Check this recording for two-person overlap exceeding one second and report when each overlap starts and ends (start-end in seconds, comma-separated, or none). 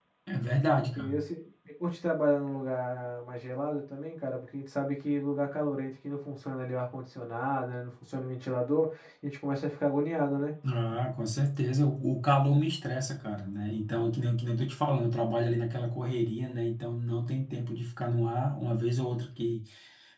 none